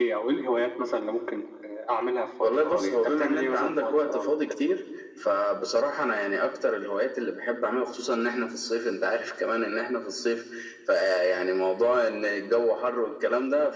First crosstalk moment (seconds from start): 2.4 s

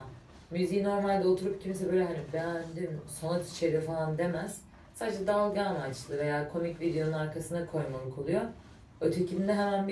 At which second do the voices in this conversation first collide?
none

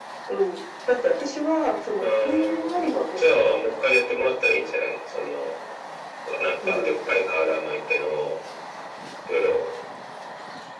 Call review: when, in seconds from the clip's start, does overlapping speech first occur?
2.0 s

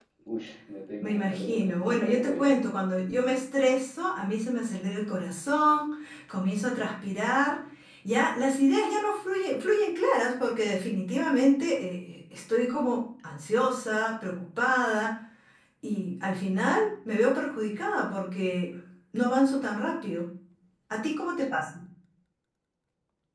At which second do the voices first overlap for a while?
1.0 s

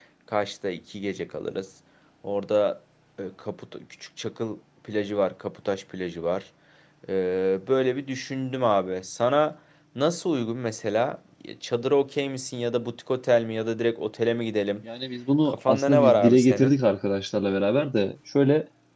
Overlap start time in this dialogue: 15.5 s

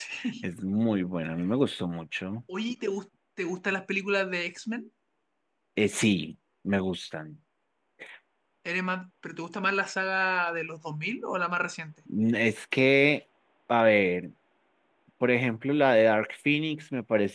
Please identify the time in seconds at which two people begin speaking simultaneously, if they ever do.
none

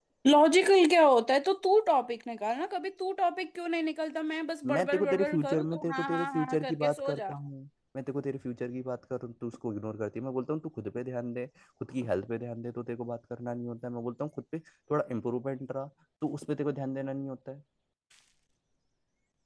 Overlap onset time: 4.6 s

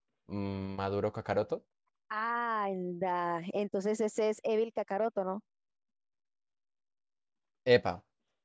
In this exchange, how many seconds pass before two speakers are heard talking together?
none

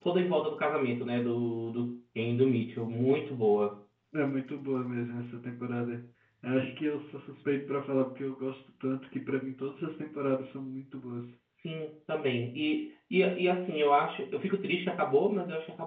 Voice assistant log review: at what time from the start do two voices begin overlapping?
none

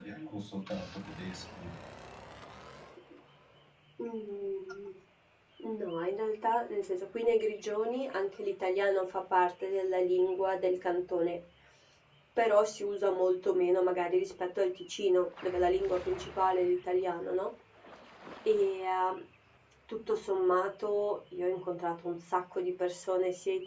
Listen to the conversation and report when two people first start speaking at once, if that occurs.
none

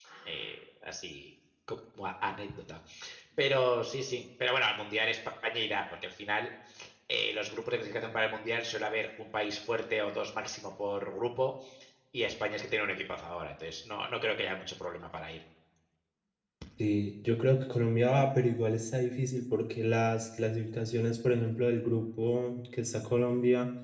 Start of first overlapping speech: none

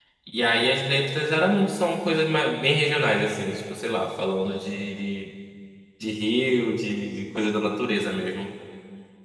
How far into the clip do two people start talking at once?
none

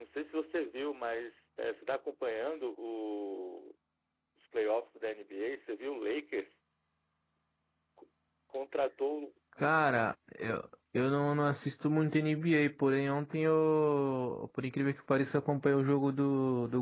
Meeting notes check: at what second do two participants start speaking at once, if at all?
none

